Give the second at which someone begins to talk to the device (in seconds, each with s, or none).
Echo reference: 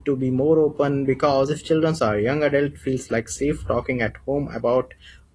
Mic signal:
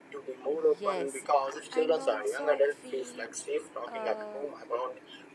0.5 s